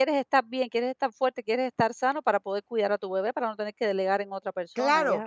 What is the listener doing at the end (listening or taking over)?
taking over